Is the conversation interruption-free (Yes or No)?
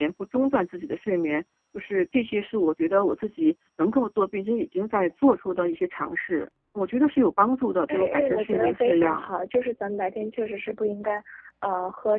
No